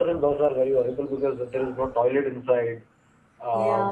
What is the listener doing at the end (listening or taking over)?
listening